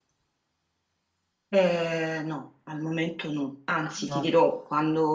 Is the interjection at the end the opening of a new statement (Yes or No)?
No